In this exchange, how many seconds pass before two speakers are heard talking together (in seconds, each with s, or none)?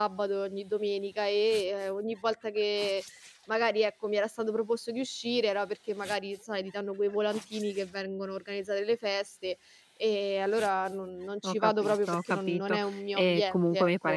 11.4 s